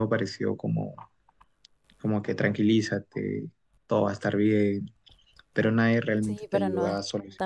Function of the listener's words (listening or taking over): taking over